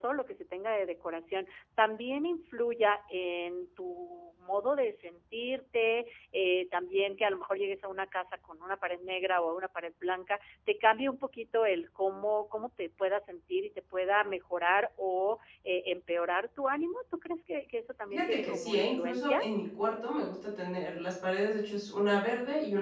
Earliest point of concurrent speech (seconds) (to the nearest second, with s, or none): 18 s